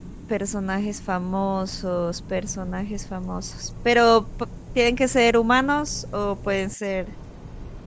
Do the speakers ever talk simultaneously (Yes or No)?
No